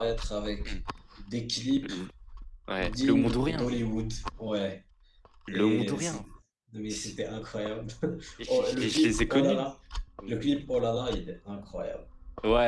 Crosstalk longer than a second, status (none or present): present